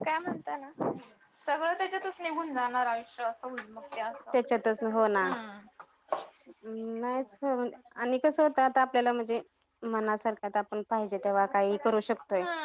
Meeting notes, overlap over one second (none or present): none